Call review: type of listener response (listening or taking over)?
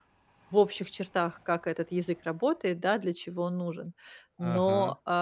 listening